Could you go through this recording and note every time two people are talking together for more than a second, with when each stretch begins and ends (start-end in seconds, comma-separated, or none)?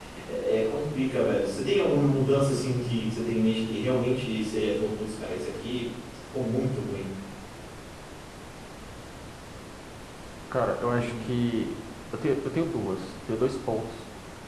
none